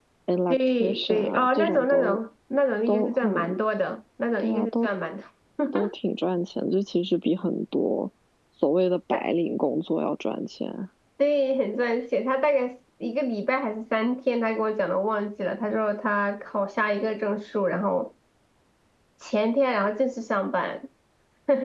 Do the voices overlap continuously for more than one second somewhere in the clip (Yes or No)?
Yes